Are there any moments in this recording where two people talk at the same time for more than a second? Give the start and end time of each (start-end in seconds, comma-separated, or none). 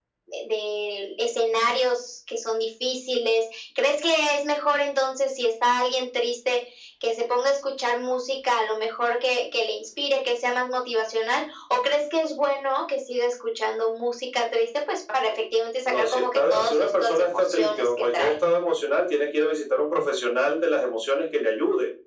15.8-18.3